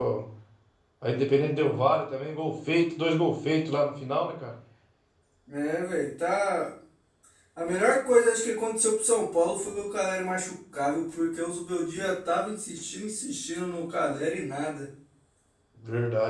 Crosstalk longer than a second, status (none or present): none